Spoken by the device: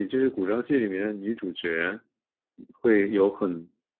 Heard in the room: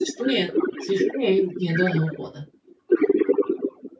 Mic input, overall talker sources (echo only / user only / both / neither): both